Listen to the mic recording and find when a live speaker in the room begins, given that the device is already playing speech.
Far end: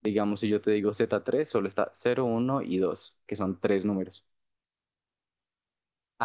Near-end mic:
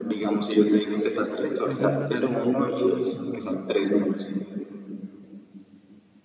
1.6 s

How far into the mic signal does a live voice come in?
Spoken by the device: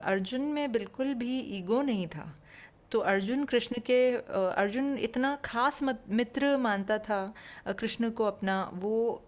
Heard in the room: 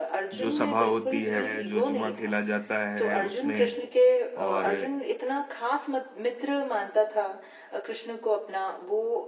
0.4 s

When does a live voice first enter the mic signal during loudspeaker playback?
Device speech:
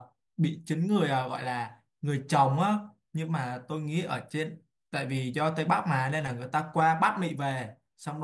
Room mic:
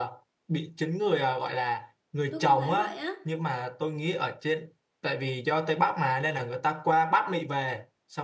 2.3 s

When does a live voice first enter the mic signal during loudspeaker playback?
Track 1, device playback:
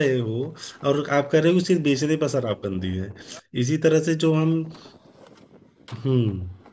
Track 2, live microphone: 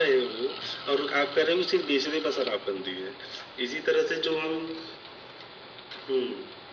none

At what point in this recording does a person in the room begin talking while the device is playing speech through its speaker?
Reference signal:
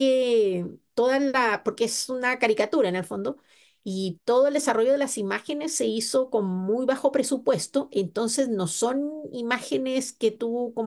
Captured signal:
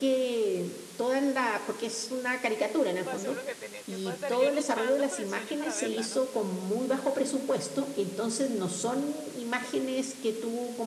3.0 s

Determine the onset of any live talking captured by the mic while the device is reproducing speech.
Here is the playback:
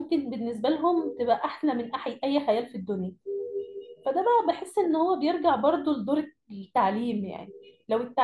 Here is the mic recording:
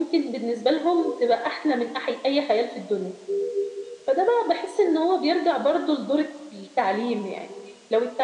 none

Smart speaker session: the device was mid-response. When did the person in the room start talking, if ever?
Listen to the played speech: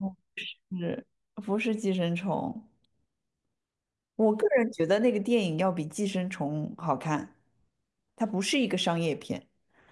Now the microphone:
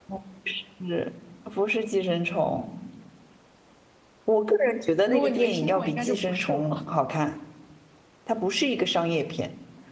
5.0 s

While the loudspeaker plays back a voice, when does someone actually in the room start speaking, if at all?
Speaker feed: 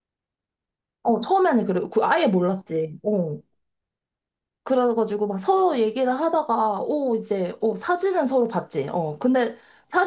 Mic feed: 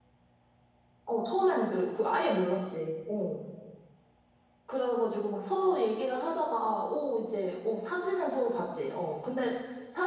none

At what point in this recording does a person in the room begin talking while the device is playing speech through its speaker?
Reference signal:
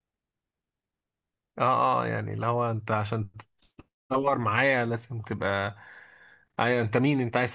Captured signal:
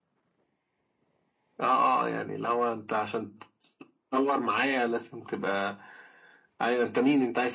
none

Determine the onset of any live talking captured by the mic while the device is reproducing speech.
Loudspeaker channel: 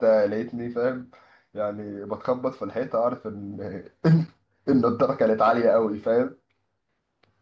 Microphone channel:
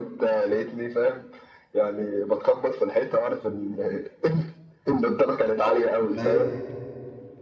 6.2 s

